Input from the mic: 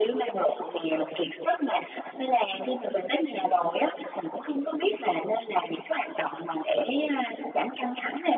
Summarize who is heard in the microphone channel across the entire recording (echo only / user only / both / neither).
echo only